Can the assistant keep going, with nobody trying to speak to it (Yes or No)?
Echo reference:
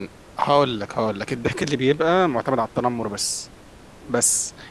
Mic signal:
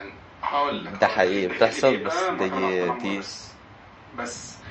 No